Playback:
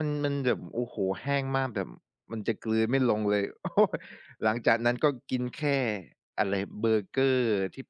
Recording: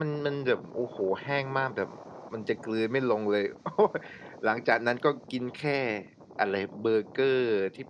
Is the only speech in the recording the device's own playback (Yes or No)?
Yes